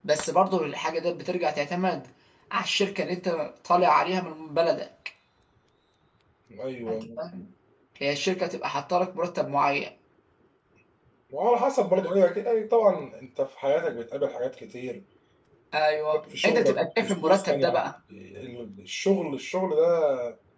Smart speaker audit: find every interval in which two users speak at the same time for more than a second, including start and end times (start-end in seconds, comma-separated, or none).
16.4-17.8